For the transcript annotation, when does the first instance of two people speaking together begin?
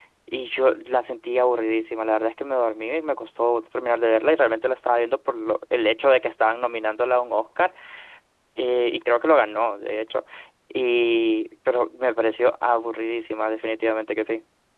none

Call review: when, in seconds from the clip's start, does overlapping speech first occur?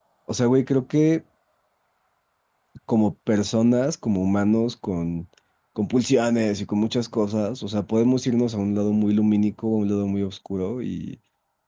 none

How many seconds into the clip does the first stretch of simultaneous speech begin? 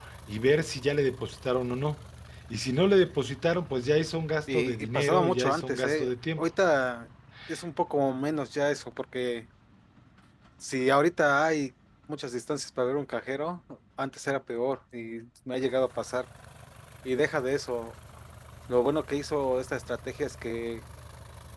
4.5 s

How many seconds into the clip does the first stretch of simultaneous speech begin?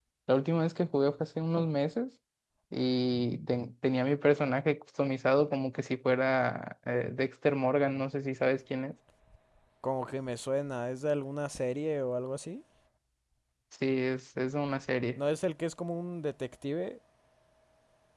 none

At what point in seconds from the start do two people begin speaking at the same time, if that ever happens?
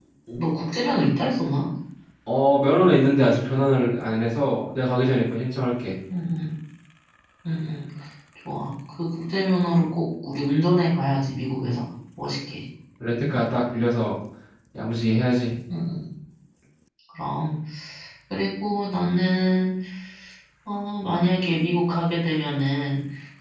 none

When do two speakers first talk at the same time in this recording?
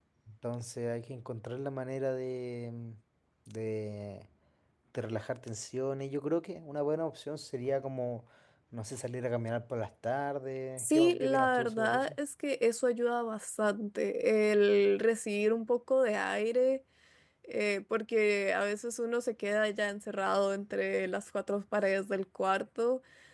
10.8 s

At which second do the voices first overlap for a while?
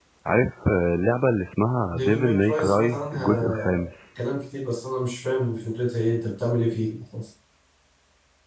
1.9 s

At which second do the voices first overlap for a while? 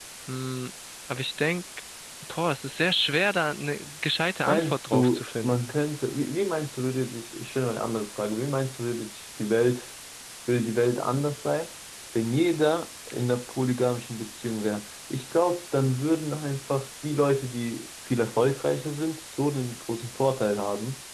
4.5 s

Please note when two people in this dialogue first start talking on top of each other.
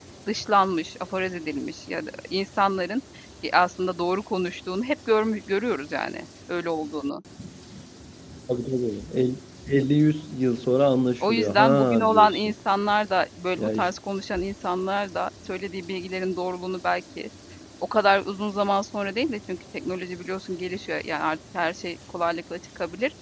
11.2 s

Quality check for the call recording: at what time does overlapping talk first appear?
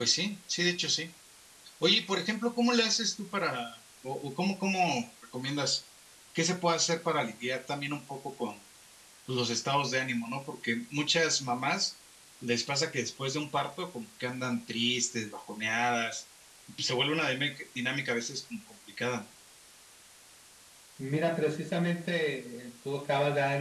none

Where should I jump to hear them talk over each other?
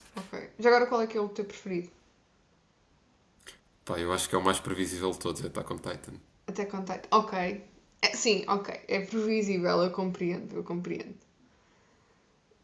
none

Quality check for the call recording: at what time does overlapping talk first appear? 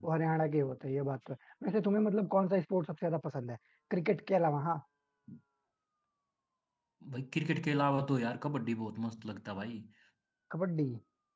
none

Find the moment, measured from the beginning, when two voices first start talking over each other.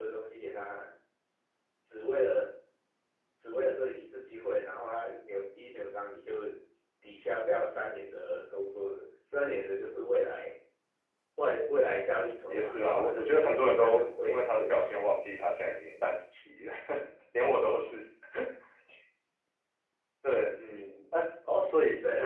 12.5 s

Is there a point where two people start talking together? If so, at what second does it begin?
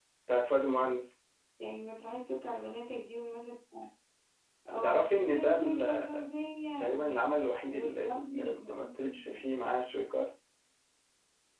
4.8 s

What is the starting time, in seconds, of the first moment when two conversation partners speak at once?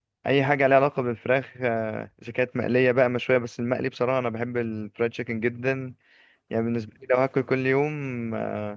none

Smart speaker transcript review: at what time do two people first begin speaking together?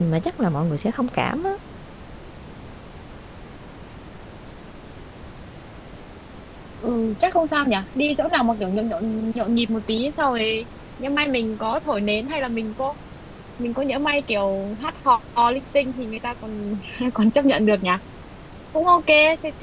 none

